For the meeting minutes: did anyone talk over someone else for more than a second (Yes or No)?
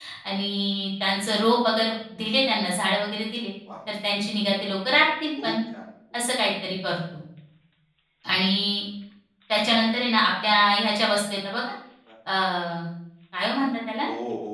No